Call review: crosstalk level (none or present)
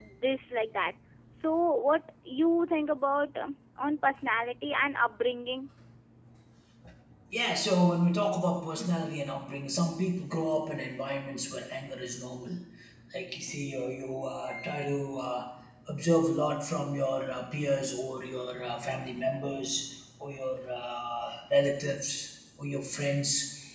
none